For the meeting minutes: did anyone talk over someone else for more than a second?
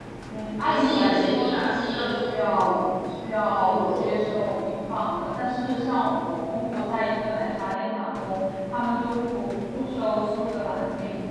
Yes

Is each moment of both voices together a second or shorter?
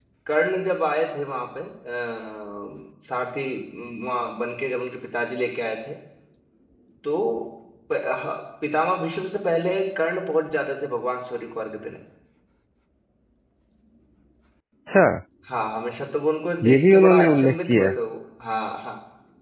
No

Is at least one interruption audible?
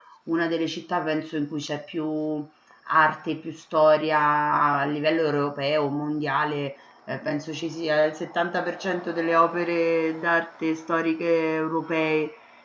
No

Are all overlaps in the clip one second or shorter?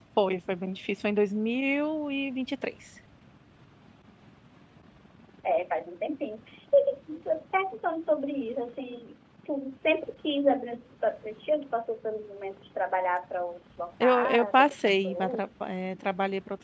No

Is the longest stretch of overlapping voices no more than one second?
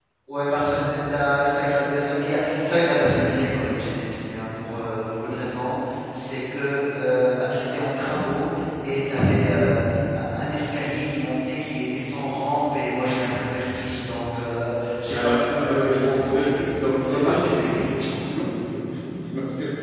No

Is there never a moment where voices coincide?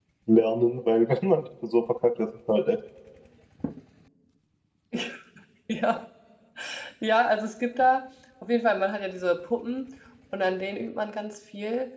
Yes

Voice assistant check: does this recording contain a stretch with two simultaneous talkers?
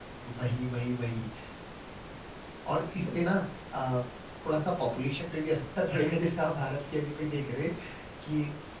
No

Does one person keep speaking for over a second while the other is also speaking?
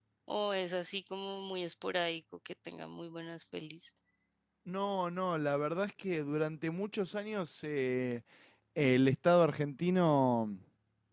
No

